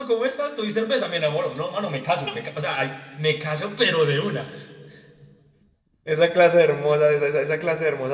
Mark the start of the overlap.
none

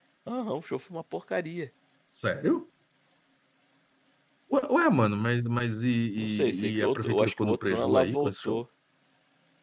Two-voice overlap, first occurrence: 6.2 s

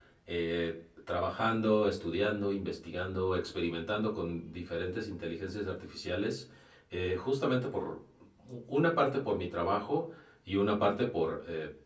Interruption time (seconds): none

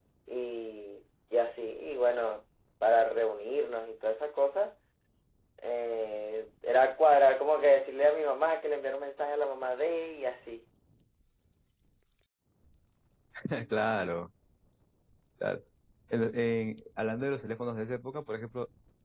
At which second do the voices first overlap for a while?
none

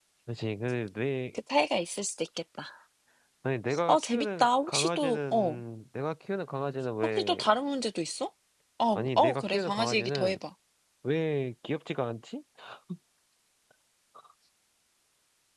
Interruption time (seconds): 3.9 s

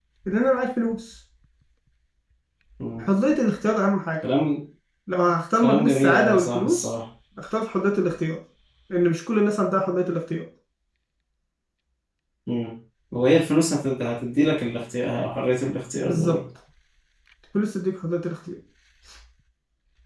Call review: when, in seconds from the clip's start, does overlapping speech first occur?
5.6 s

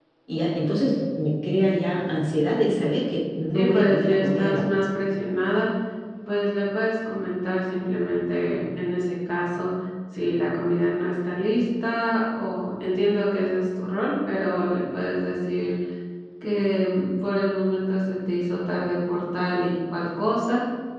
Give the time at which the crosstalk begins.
3.5 s

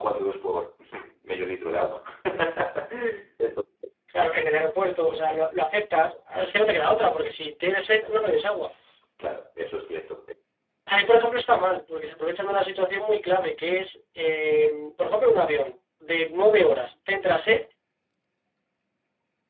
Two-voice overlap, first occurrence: none

